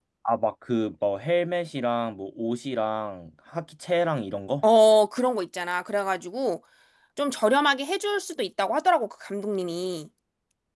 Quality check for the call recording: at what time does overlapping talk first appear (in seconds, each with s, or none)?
none